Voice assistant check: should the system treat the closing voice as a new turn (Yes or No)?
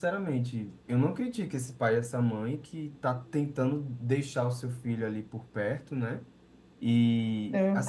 No